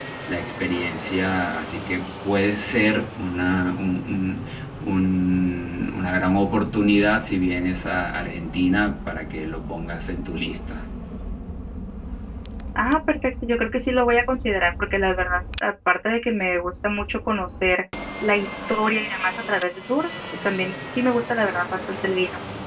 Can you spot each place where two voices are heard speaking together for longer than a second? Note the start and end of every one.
none

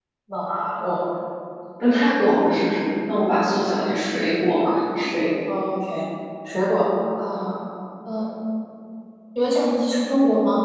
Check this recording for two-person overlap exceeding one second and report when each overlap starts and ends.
none

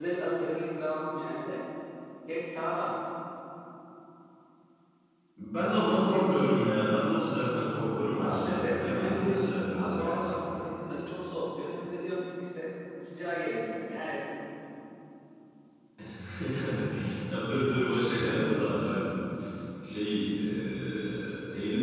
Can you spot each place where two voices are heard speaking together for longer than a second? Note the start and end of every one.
8.2-10.6

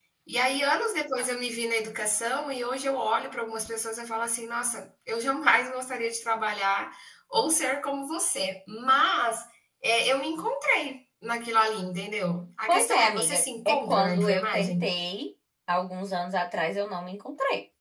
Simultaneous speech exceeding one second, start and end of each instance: 12.7-14.9

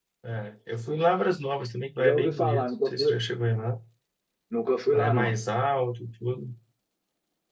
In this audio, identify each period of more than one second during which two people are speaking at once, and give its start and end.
2.0-3.2

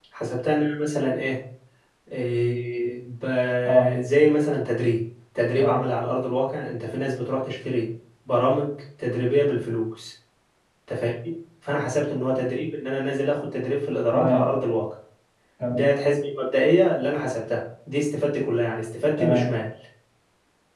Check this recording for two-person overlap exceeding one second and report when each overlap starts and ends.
none

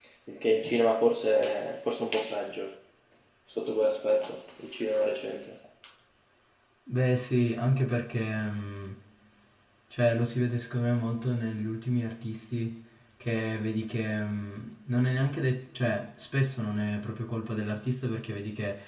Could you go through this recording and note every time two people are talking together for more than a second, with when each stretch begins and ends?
none

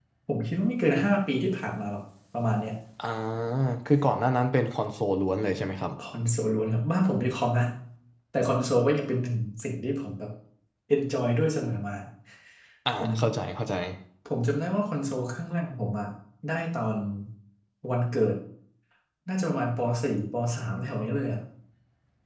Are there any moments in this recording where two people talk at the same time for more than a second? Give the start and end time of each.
none

